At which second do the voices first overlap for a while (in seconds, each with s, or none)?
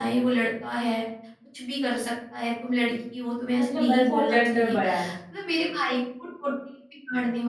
3.6 s